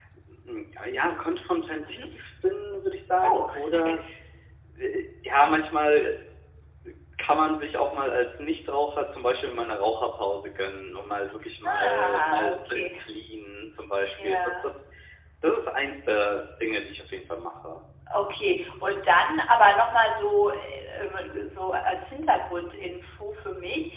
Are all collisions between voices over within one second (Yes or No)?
No